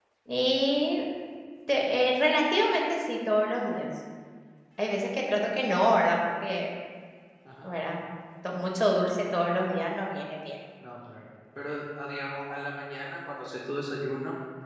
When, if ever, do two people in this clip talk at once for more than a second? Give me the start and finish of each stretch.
none

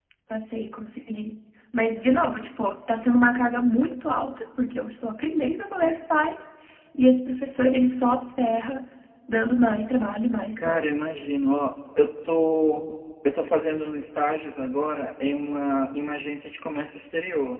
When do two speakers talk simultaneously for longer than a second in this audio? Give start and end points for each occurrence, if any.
none

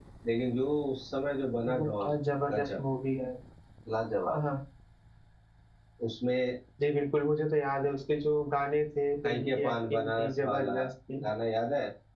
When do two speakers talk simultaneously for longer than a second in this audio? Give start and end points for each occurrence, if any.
9.2-10.7

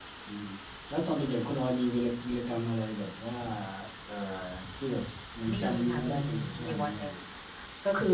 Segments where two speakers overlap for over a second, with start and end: 5.5-7.1

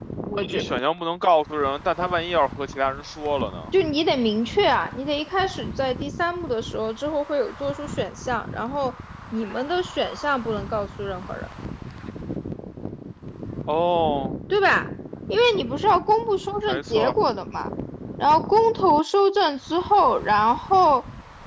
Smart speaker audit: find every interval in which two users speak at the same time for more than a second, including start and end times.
none

